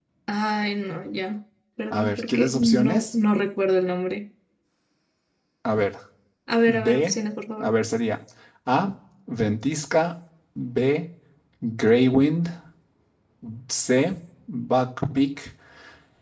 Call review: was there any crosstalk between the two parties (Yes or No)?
Yes